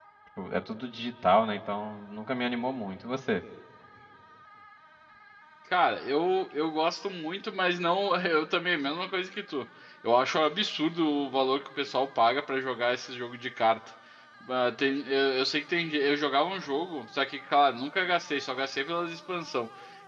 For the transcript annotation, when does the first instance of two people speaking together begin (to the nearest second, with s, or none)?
none